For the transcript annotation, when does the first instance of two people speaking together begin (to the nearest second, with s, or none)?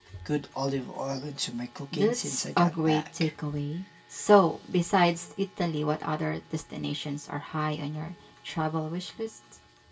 2 s